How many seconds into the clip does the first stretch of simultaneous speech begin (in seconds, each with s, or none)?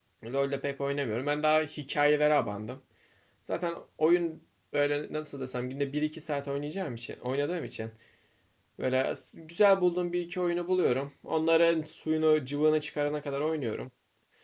none